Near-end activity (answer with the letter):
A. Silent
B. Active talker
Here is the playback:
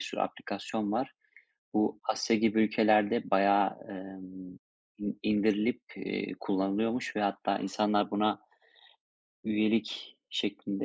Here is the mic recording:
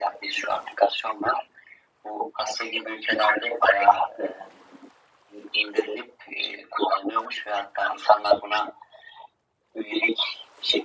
A